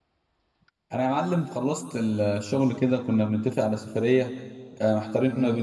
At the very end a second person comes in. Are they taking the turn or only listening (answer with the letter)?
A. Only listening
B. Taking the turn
A